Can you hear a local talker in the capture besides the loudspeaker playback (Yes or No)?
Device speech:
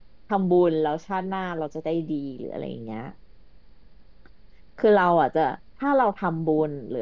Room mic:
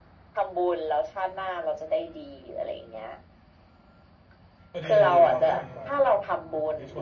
Yes